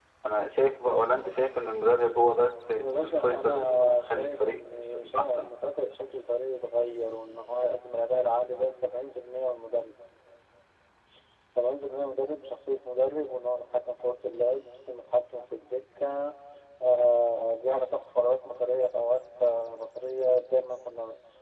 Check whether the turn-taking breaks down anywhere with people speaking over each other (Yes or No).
Yes